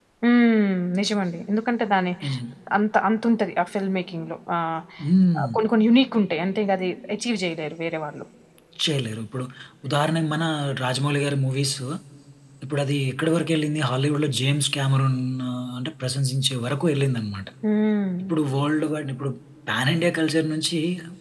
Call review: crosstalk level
none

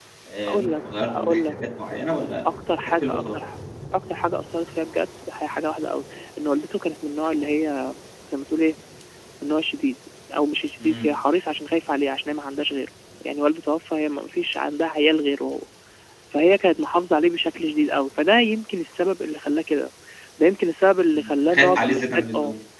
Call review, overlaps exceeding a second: present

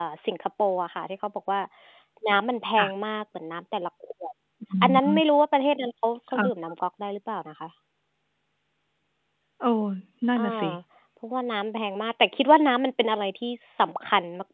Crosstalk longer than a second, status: none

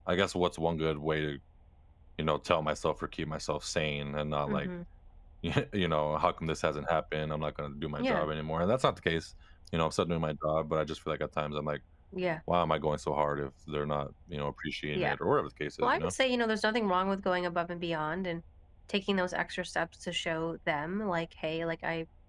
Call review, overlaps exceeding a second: none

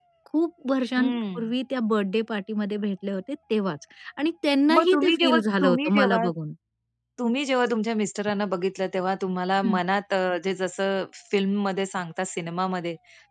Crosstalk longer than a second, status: present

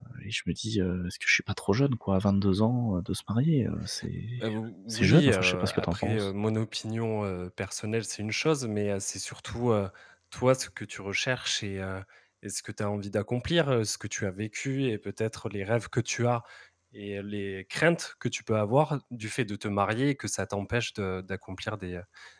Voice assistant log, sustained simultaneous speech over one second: present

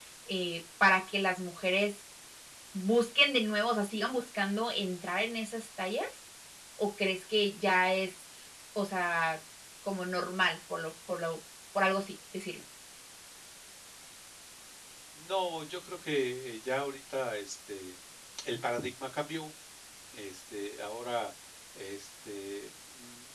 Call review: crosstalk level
none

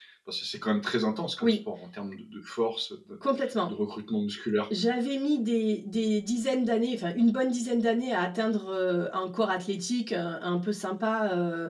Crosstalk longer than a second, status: none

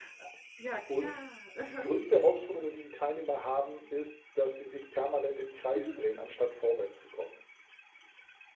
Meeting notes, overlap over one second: none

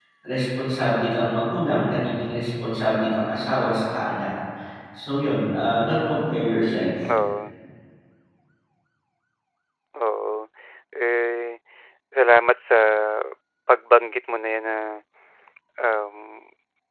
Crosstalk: none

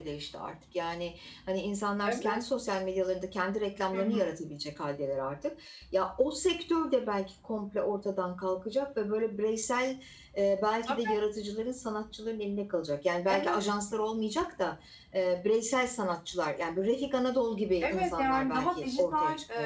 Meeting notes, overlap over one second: present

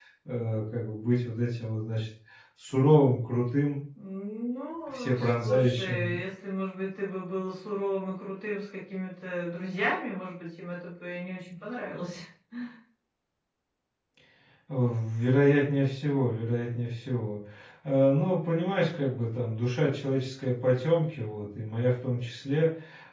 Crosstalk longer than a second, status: present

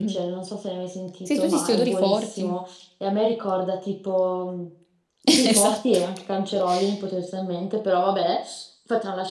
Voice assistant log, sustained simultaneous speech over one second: present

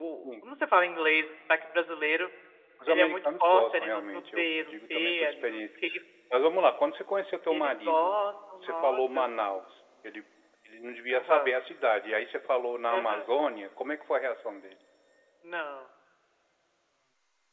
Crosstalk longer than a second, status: present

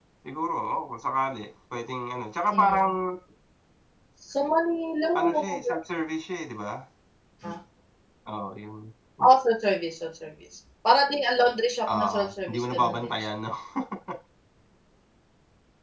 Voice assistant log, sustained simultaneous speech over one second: present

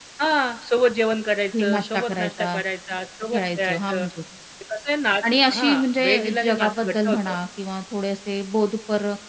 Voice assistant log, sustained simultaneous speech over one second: present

